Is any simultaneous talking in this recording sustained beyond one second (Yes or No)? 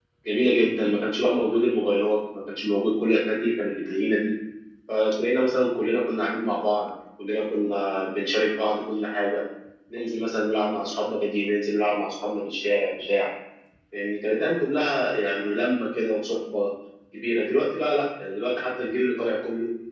No